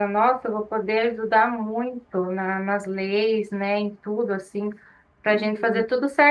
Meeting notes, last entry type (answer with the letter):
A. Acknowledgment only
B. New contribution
A